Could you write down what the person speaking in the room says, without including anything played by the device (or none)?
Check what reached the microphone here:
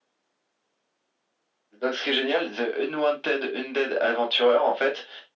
none